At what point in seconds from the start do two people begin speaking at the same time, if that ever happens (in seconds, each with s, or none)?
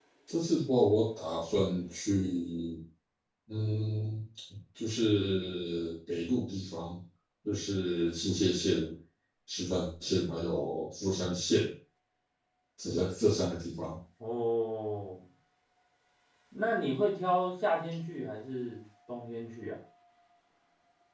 none